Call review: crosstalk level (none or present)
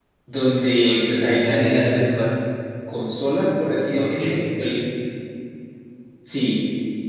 present